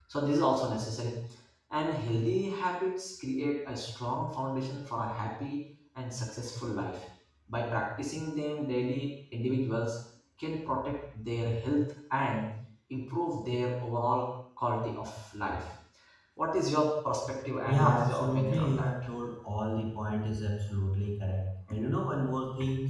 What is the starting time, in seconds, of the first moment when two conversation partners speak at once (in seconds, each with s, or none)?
17.7 s